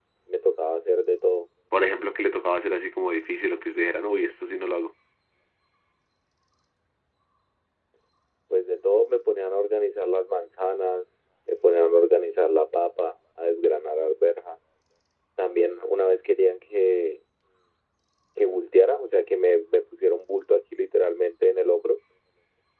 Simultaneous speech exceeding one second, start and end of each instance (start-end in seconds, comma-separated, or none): none